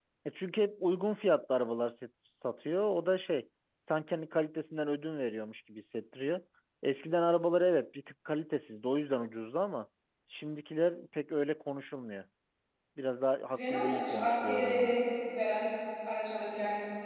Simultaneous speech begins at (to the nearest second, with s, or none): 14 s